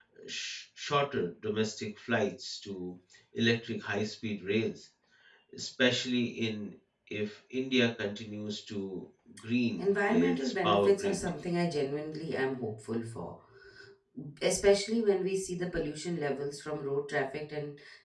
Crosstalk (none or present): present